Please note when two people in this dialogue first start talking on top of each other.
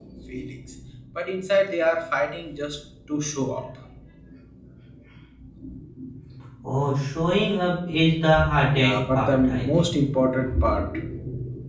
9 s

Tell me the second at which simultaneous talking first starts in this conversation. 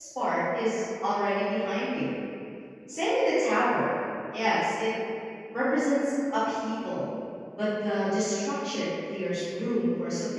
none

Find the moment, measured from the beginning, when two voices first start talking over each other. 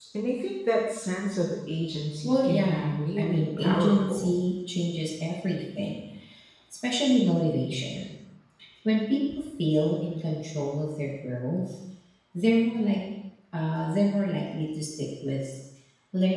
2 s

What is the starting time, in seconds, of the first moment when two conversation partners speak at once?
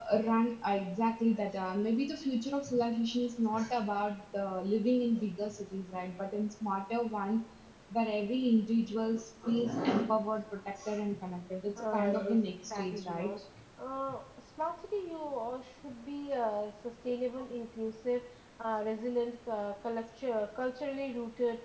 12 s

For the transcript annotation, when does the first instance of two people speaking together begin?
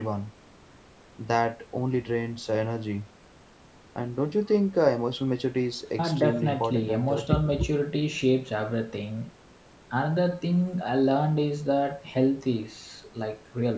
6 s

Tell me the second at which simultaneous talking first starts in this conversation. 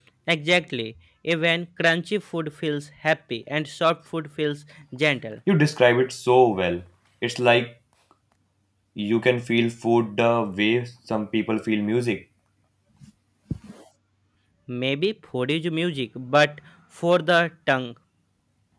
none

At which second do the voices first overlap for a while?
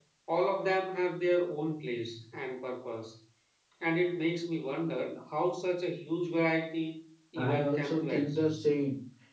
7 s

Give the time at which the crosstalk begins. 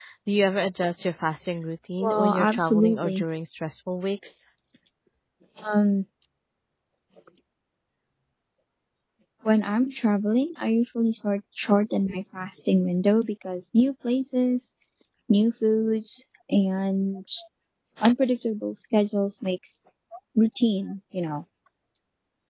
2 s

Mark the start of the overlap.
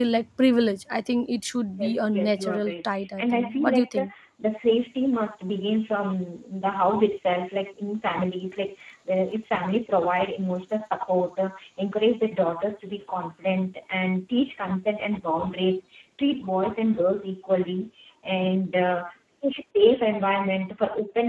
2 s

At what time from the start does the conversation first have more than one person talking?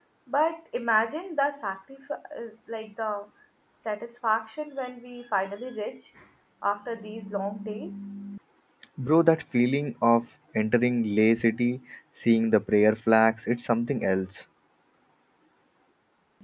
none

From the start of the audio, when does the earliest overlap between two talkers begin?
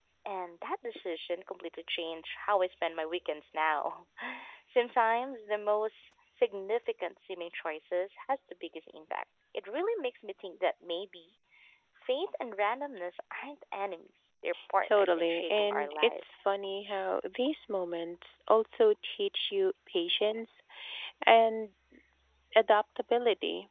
15 s

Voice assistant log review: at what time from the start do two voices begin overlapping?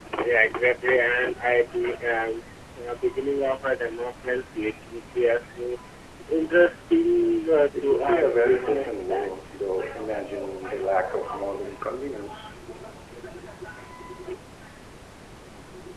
8 s

